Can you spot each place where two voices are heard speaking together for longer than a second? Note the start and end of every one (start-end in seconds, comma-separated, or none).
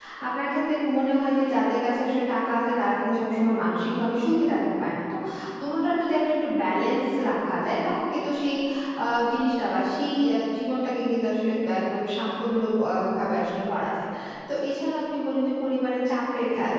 none